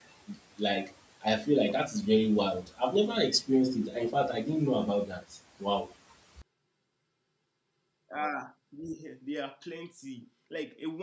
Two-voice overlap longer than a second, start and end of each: none

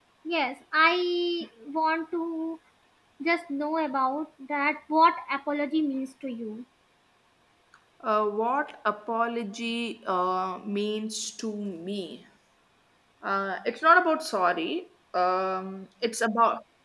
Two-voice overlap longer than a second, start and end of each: none

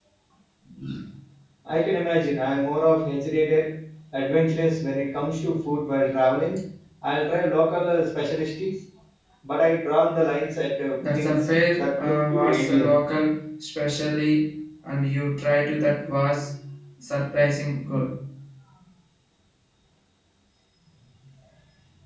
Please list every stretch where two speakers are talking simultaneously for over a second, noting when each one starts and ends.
11.1-12.9

